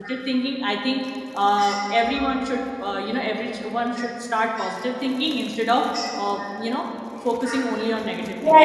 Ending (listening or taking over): taking over